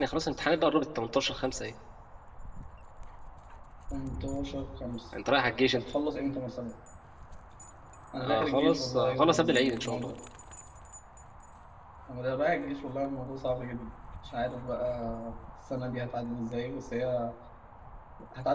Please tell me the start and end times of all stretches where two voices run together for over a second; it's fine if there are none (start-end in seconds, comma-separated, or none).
8.2-10.1